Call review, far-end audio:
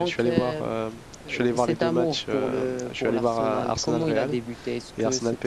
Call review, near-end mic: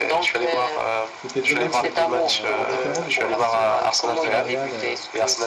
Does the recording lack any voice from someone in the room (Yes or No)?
No